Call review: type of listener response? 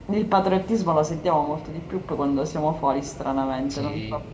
taking over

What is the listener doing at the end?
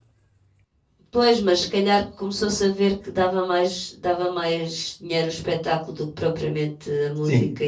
taking over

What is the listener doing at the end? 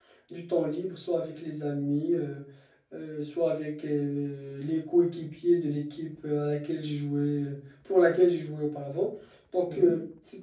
listening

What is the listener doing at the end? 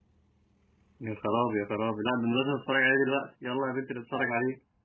taking over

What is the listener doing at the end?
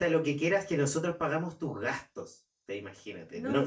listening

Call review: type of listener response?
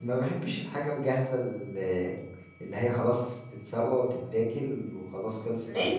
taking over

